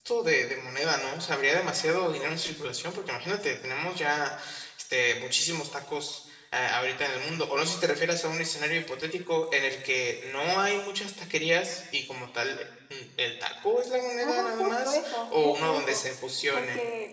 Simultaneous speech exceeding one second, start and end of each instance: 14.2-16.0

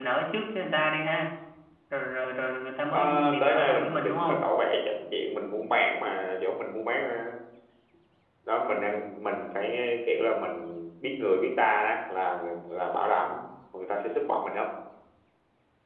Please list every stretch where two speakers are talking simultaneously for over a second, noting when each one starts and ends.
2.9-4.4

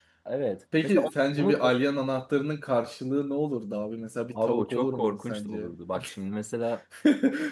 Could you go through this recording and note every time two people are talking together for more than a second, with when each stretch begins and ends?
4.5-5.7

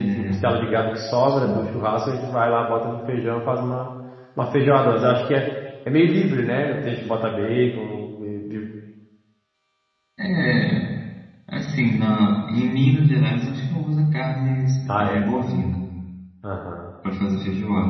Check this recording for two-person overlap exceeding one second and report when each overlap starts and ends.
none

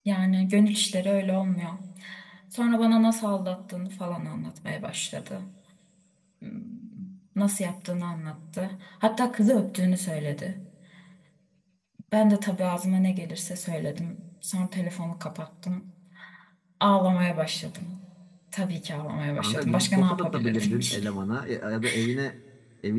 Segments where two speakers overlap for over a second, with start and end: 19.4-21.1

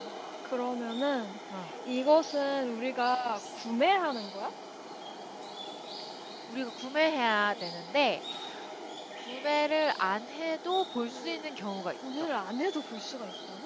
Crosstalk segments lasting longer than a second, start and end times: none

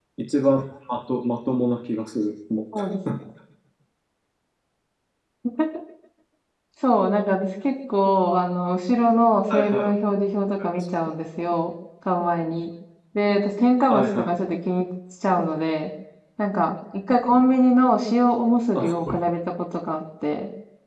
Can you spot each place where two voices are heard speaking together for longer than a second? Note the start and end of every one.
none

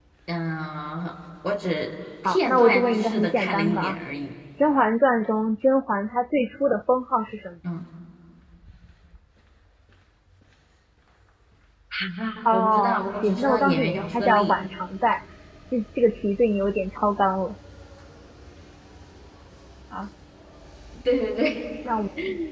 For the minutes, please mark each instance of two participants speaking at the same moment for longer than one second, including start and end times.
2.2-4.0, 12.4-14.6

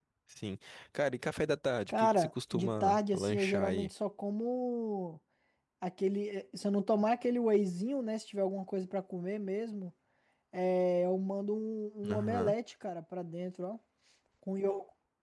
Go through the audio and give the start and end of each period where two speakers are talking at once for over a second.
1.9-3.9

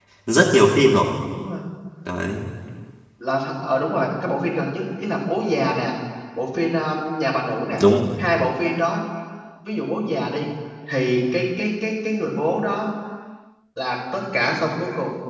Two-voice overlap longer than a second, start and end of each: none

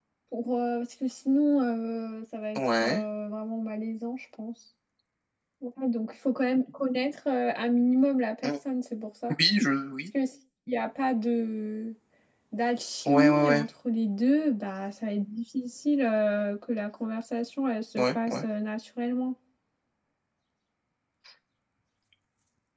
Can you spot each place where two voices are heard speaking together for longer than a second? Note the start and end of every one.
none

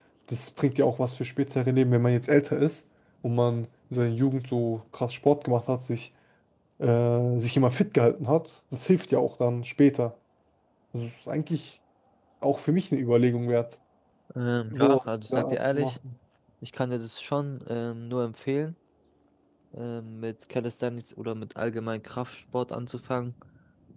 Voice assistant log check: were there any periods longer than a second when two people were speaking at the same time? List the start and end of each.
14.7-15.9

